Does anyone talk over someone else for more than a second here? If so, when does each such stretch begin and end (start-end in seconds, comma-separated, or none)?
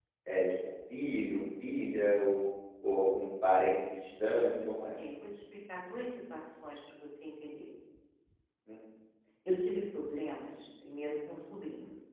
none